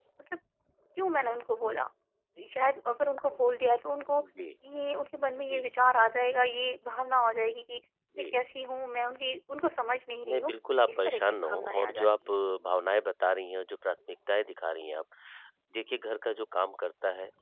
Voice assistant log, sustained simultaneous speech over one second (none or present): present